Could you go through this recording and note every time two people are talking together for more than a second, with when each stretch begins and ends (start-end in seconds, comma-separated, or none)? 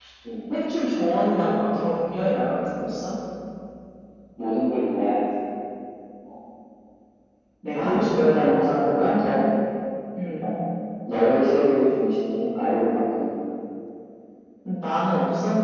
7.7-9.1